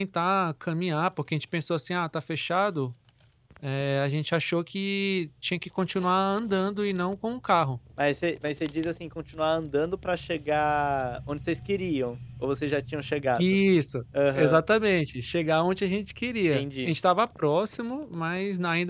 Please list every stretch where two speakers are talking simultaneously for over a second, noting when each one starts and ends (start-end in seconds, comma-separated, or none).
none